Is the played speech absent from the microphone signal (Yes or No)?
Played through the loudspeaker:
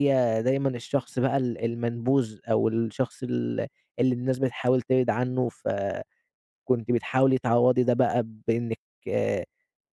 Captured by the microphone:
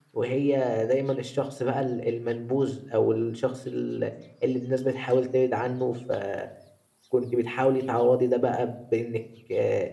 No